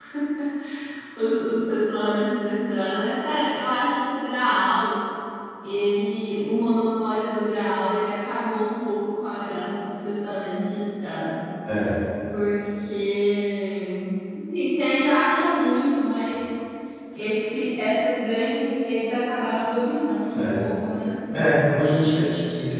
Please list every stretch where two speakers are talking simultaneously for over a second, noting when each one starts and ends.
none

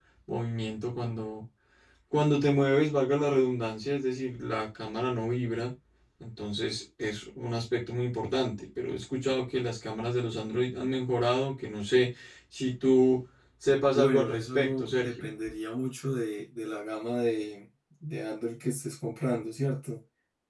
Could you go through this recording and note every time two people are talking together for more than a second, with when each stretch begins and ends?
13.9-15.2

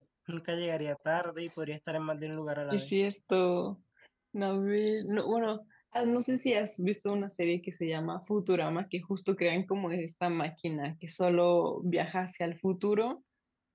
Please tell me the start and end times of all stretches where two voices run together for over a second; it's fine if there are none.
none

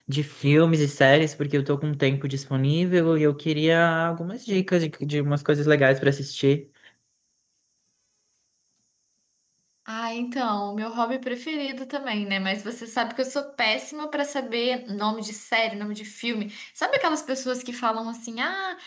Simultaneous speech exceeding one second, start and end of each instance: none

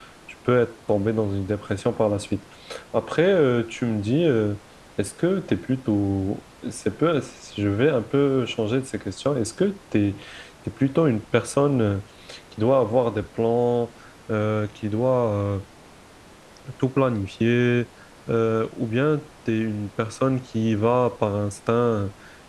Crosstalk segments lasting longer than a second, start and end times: none

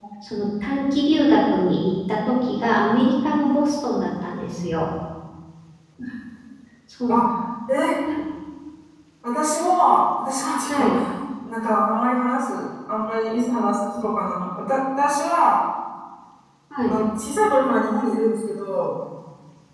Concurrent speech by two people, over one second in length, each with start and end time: none

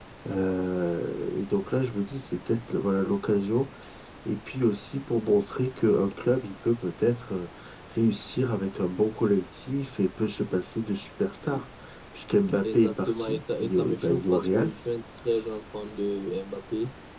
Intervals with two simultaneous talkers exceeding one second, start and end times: 12.6-14.7

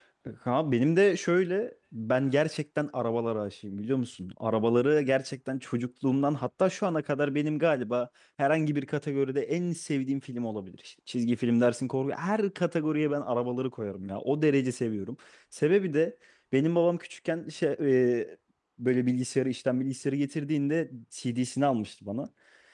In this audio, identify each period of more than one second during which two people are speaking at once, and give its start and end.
none

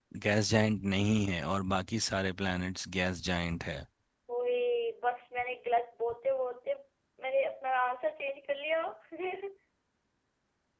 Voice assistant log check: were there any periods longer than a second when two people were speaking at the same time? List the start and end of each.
none

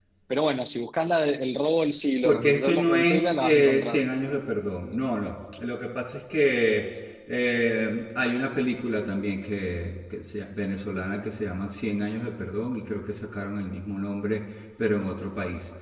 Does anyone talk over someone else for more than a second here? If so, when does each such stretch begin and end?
2.2-4.0

